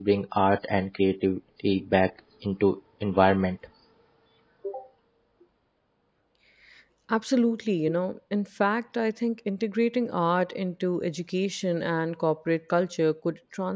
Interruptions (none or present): none